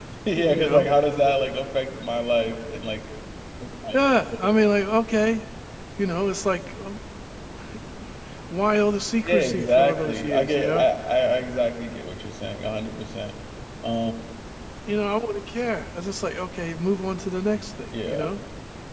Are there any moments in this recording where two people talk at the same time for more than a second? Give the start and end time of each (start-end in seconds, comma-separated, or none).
9.2-10.8